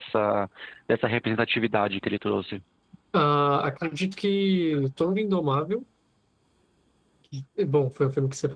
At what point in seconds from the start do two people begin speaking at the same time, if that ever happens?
none

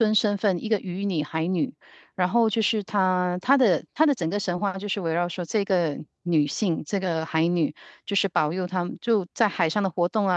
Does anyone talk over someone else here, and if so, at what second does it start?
none

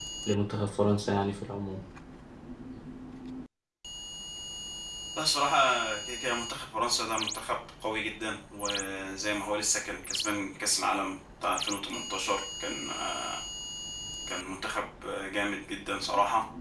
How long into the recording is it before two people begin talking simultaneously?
none

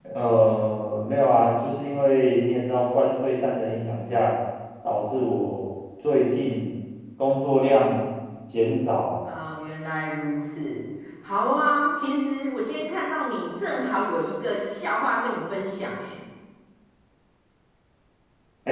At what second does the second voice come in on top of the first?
none

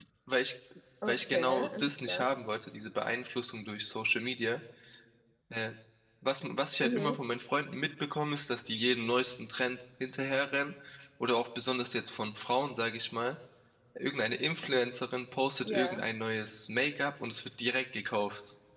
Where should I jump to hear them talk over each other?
1.1 s

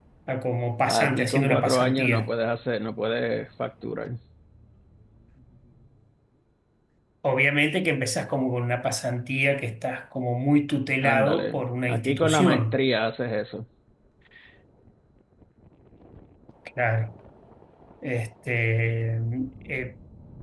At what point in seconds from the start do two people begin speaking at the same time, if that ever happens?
0.9 s

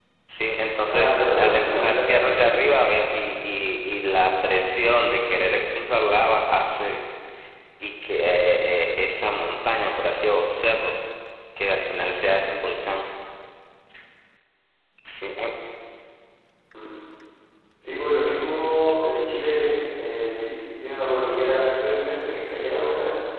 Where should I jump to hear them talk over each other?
0.9 s

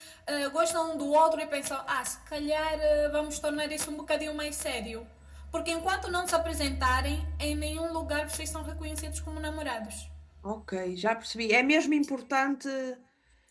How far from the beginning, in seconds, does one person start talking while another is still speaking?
none

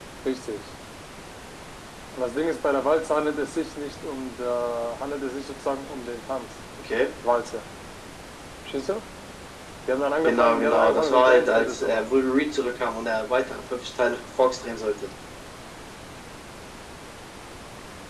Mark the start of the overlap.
10.2 s

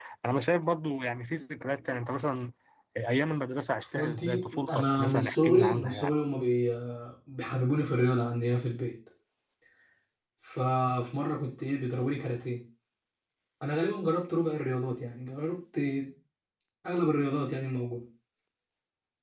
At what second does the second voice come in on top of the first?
4.0 s

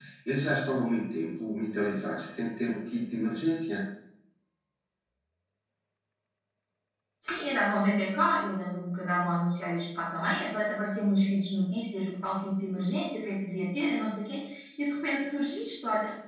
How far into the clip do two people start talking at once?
none

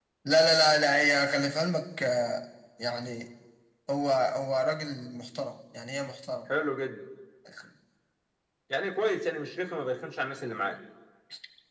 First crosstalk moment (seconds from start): none

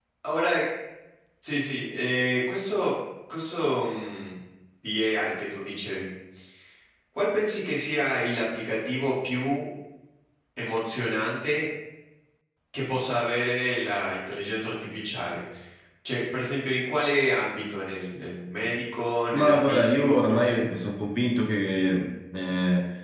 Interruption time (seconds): 19.3 s

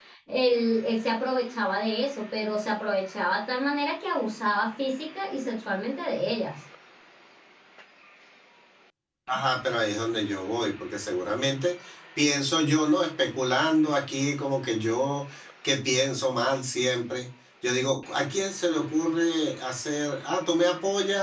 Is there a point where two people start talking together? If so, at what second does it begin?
none

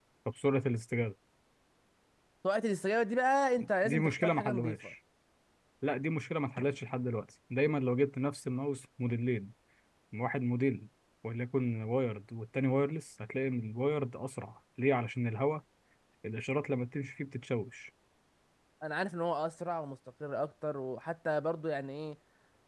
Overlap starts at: 3.6 s

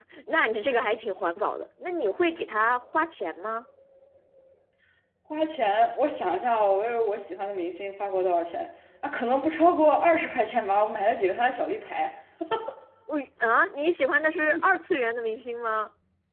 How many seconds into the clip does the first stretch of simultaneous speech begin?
none

